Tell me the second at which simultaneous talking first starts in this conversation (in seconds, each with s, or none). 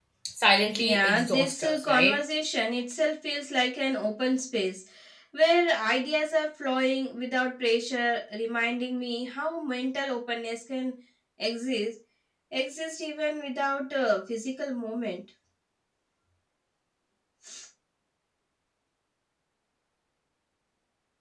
0.8 s